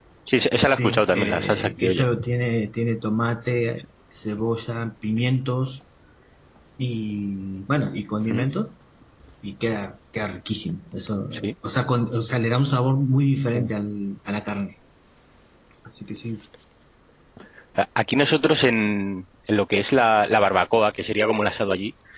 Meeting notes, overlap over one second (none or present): present